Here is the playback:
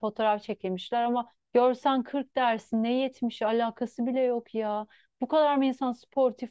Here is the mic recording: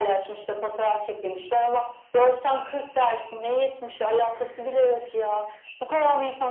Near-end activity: none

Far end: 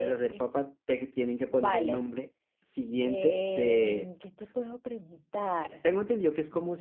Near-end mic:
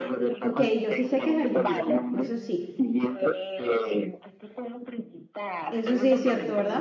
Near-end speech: present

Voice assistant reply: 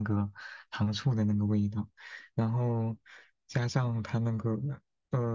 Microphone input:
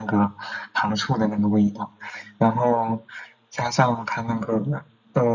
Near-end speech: none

